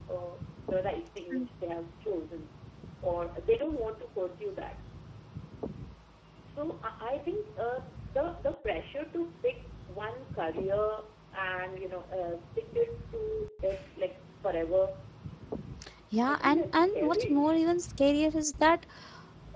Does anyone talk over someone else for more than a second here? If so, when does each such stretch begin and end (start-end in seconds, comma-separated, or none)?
16.2-17.5